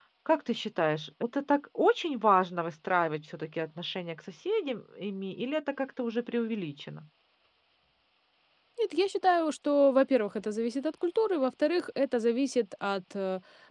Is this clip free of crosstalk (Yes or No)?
Yes